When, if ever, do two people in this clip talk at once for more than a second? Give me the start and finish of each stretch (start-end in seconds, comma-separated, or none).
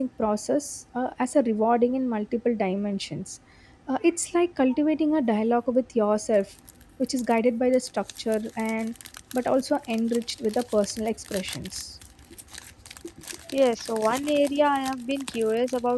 none